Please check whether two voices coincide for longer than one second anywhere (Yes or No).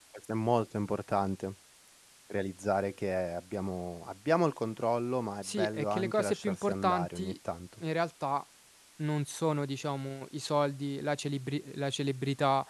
Yes